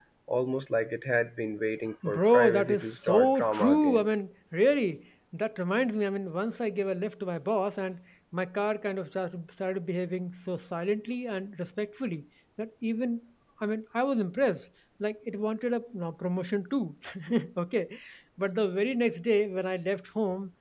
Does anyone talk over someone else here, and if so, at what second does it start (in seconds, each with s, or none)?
2.0 s